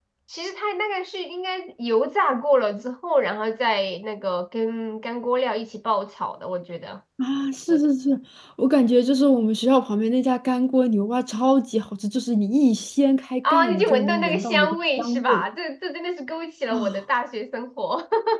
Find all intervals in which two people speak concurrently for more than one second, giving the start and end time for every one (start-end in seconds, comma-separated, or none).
13.5-15.4